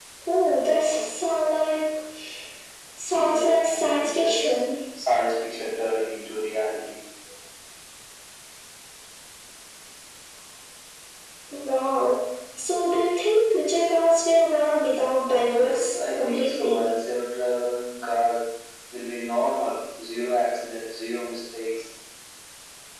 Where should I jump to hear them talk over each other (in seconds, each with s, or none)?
3.1 s